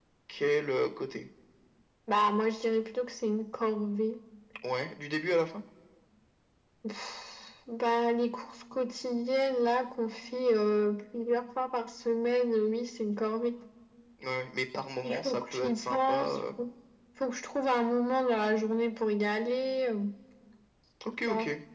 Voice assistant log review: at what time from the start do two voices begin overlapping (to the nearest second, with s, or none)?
15 s